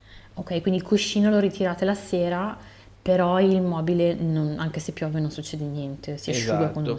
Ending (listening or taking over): taking over